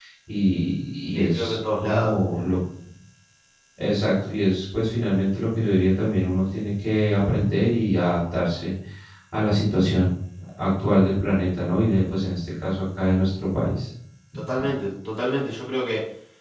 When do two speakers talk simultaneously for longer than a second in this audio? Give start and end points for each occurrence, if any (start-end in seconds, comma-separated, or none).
1.1-2.5